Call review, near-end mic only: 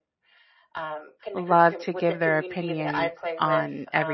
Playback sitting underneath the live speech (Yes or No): Yes